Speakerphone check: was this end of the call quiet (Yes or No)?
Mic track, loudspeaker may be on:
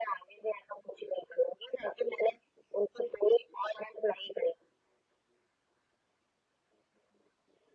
Yes